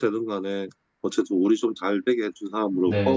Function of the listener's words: taking over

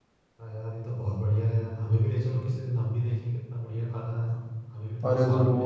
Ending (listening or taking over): taking over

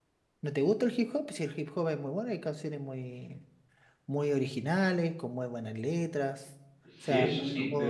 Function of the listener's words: taking over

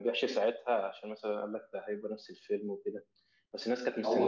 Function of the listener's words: listening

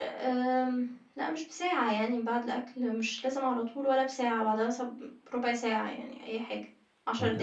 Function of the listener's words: taking over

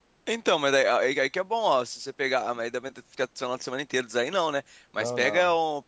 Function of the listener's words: listening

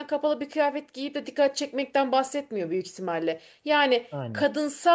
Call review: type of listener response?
listening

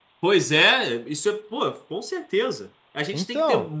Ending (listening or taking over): listening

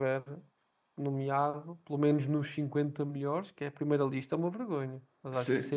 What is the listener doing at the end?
taking over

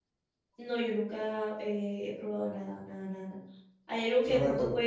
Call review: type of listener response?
listening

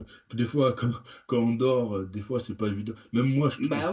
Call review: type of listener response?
listening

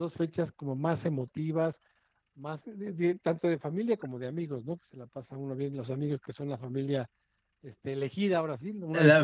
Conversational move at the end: taking over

